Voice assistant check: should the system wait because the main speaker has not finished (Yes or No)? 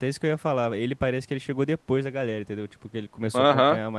No